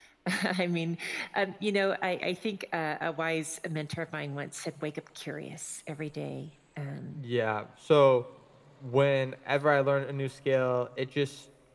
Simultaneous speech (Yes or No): No